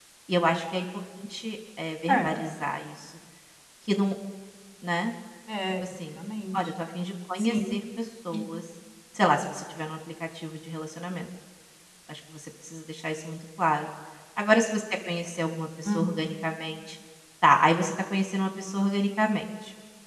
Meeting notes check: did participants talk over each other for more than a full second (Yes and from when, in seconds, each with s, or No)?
No